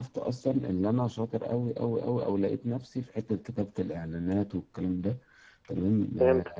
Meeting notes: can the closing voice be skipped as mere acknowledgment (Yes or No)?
Yes